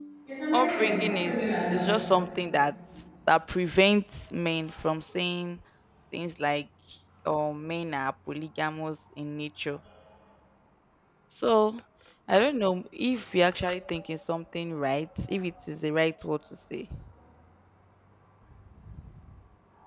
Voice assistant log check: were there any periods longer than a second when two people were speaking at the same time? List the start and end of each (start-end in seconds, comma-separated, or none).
0.5-1.9